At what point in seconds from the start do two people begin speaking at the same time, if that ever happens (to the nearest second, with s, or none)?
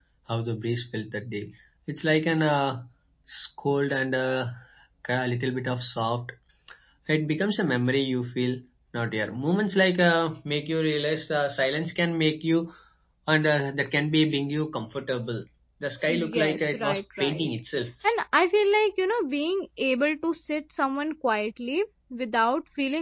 16 s